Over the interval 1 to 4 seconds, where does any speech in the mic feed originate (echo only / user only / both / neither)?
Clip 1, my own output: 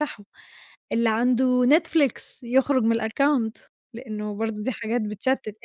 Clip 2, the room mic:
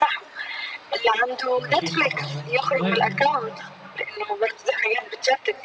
both